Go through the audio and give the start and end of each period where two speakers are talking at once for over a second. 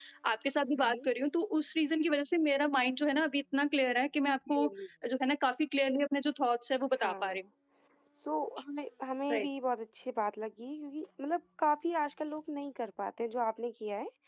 none

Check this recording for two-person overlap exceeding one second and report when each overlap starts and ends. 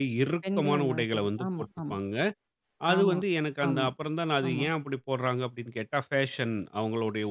0.6-1.9

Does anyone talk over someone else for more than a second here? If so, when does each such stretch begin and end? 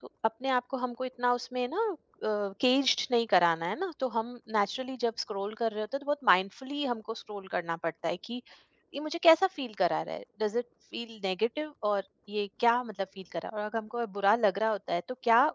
none

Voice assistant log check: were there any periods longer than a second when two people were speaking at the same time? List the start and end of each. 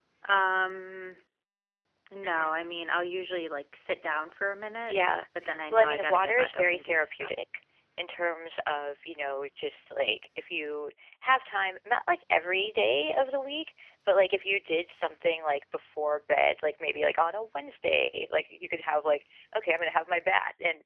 5.7-7.3

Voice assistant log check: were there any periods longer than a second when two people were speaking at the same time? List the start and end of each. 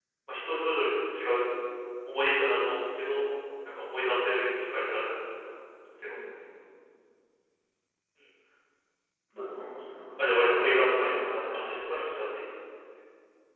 10.2-11.8

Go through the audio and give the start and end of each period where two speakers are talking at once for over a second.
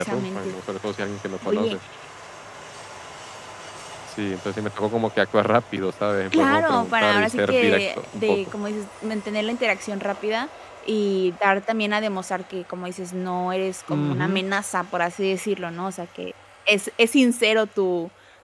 6.3-8.4

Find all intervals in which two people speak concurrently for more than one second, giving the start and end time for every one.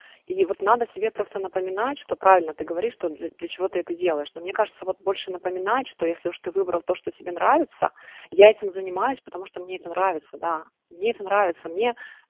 none

